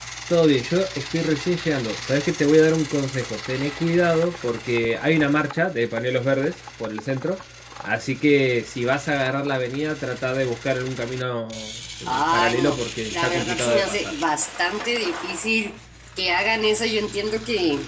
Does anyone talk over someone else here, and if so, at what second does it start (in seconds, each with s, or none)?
12.1 s